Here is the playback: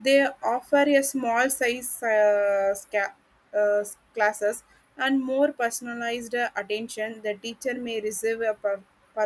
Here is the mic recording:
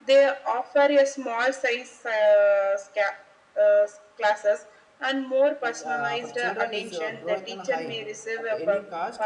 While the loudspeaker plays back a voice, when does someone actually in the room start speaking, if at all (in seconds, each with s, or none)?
5.6 s